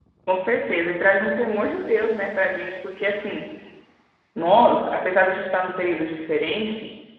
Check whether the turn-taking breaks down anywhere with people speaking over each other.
No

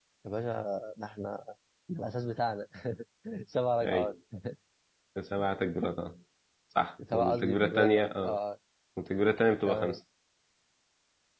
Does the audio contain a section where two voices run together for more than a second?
Yes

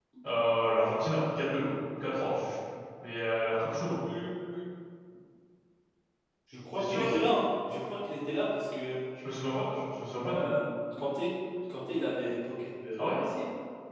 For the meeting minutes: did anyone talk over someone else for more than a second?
No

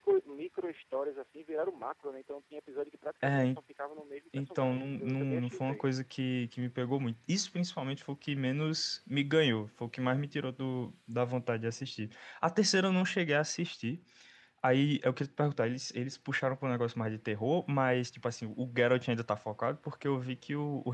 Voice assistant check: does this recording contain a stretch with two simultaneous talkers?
Yes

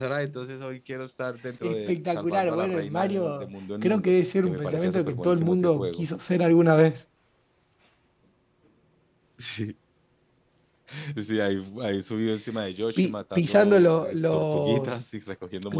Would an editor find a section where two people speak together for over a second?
Yes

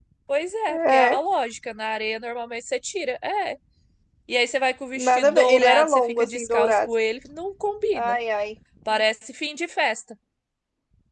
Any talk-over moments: Yes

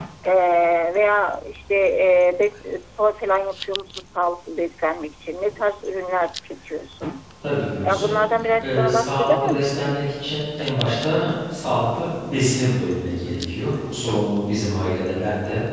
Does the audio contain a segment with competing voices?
Yes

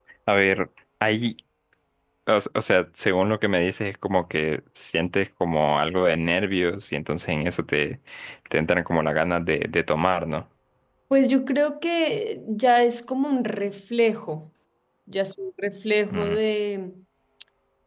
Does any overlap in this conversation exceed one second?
No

